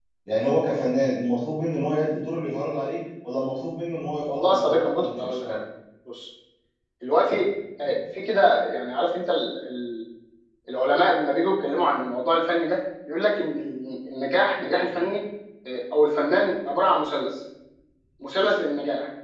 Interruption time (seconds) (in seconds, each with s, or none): 4.3 s